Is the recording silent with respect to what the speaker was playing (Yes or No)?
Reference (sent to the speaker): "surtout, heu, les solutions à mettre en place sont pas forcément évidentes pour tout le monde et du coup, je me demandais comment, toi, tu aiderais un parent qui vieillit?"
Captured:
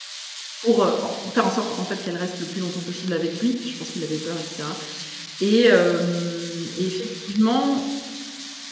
Yes